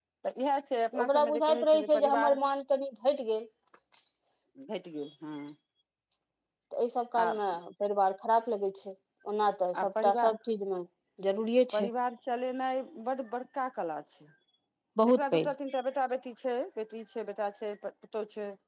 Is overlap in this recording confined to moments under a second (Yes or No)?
No